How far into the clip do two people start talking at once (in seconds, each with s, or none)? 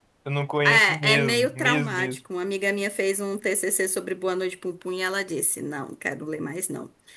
0.6 s